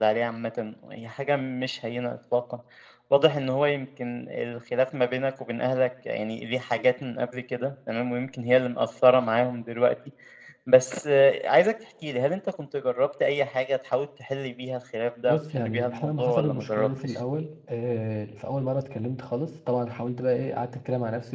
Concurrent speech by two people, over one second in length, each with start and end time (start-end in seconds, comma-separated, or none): 15.3-17.1